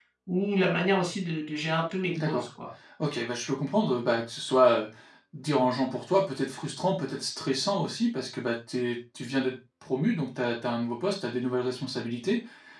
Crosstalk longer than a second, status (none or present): none